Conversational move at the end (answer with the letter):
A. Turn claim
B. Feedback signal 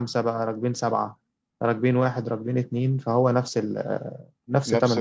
A